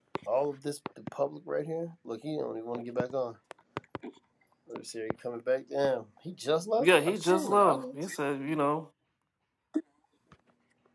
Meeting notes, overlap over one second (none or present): present